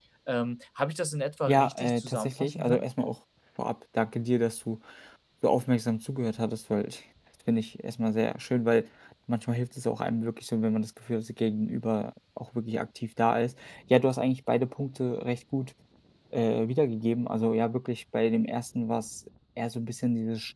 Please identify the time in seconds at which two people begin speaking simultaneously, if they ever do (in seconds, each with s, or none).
1.5 s